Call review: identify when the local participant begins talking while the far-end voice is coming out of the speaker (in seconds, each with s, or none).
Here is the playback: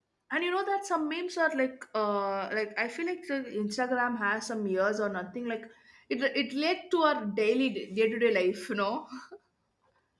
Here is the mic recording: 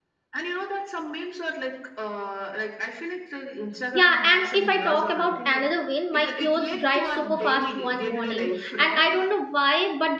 3.9 s